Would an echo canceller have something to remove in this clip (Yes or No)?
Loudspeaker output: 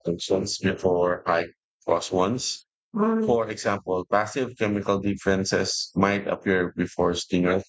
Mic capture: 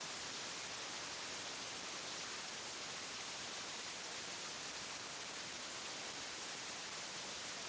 No